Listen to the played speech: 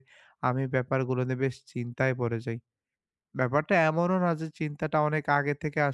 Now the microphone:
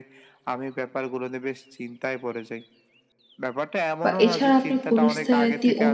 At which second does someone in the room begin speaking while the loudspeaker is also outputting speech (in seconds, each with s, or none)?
4.0 s